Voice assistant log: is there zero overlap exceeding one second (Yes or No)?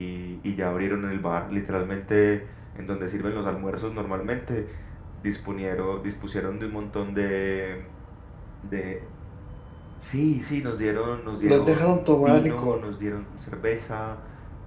No